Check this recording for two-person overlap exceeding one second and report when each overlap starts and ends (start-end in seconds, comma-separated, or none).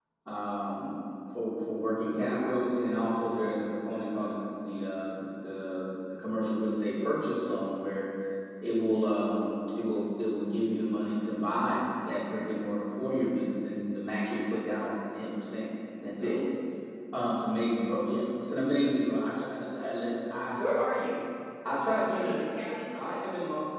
none